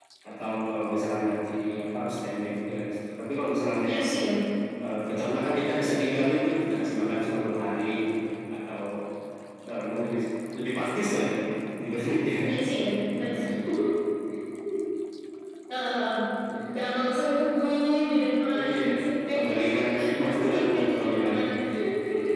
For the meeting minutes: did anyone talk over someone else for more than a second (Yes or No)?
Yes